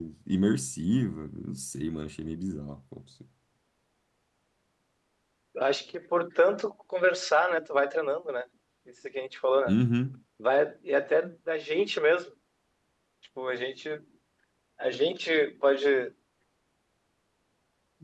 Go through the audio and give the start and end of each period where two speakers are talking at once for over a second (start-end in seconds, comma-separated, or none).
none